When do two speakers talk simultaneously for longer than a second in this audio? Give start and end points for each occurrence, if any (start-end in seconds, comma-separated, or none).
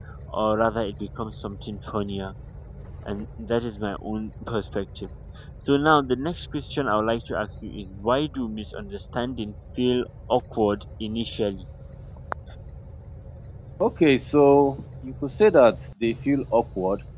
none